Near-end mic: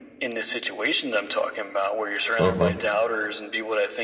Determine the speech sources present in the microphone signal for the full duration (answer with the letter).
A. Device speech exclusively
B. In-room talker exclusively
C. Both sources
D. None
C